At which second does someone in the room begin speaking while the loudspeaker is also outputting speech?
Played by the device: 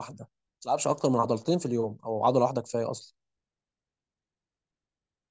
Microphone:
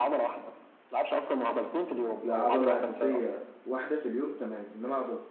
2.2 s

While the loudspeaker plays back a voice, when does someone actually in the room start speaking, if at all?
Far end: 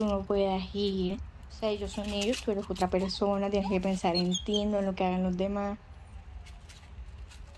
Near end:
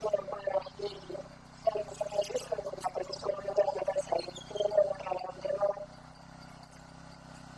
none

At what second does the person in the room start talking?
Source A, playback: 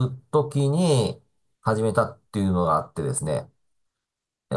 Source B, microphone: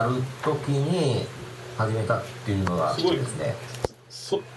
2.9 s

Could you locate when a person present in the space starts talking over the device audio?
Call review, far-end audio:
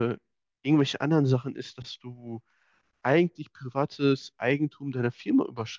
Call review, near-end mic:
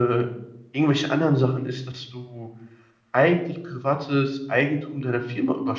none

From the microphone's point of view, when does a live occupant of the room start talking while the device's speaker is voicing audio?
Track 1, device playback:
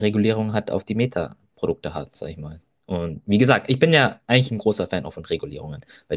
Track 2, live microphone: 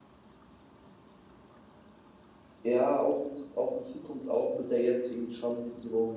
2.6 s

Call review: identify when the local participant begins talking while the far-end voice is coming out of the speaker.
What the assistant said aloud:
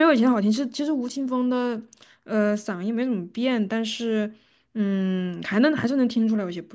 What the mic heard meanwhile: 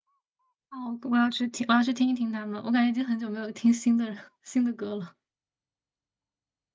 0.7 s

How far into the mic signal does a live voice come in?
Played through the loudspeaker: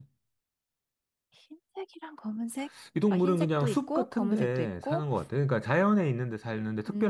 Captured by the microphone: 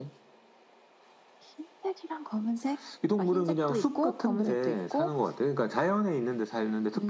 none

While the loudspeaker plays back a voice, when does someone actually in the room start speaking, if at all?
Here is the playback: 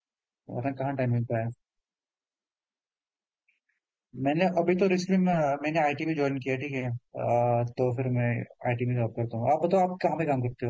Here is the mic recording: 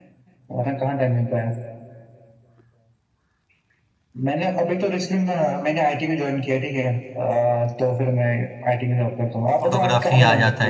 9.7 s

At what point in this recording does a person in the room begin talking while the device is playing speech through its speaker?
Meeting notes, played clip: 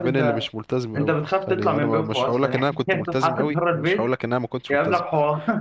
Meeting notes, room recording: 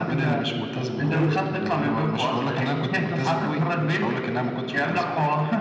1.1 s

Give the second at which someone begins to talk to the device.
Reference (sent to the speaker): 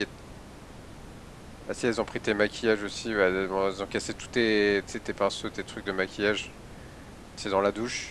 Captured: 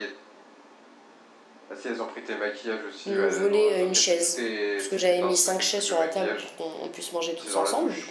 3.0 s

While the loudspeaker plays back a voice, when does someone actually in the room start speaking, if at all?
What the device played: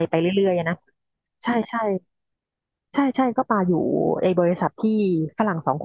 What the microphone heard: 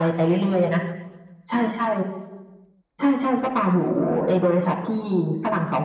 none

